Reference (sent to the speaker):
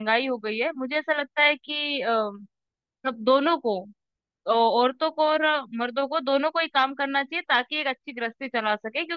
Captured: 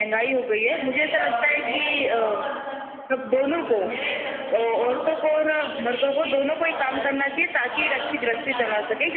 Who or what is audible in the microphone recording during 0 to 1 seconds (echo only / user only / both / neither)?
both